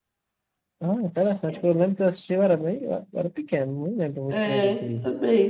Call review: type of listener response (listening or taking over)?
taking over